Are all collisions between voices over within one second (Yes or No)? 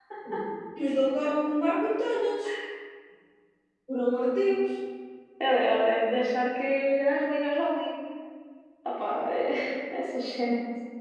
Yes